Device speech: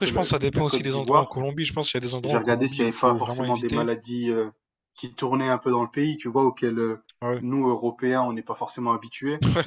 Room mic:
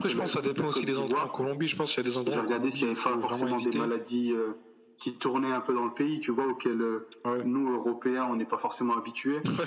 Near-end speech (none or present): none